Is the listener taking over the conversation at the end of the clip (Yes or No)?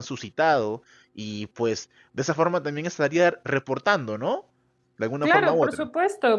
Yes